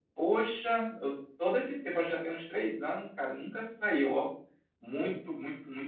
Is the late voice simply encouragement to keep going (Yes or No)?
Yes